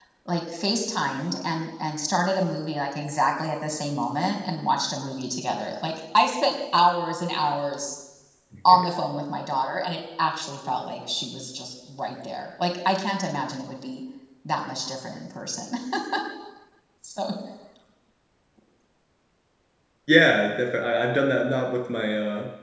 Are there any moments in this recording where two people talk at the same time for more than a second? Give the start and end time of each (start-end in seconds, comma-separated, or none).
none